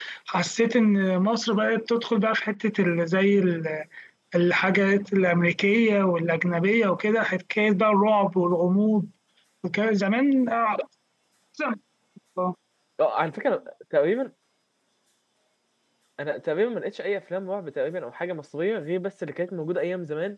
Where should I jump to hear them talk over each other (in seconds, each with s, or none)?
none